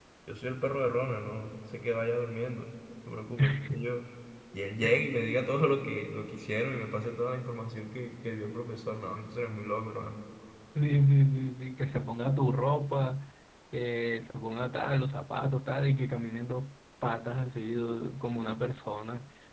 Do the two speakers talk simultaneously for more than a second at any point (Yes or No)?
No